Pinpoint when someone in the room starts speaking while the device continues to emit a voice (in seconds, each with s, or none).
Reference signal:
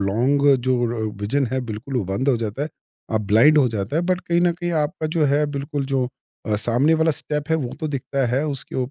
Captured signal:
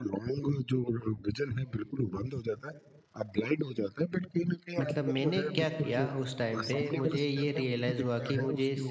4.8 s